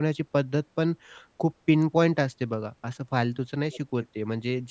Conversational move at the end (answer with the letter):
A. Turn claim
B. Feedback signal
B